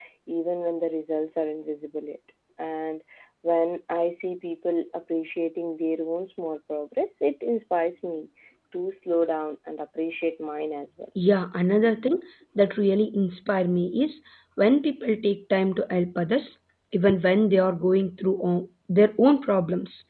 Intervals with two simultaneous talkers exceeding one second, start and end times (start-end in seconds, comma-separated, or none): none